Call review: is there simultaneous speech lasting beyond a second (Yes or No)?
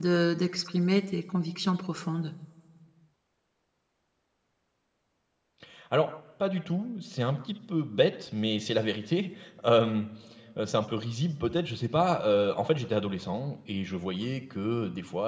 No